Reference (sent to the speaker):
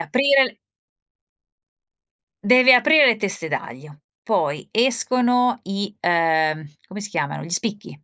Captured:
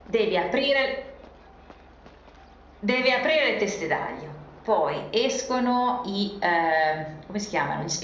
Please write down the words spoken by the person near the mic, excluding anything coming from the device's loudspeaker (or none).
none